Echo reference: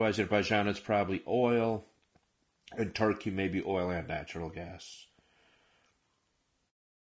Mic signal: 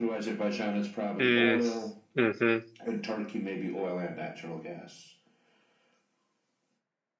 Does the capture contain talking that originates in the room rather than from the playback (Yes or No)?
Yes